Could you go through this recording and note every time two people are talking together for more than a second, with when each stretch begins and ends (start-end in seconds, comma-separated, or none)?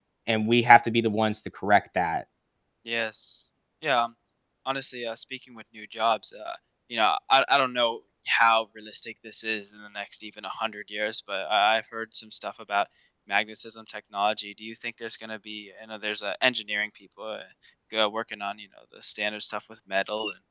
none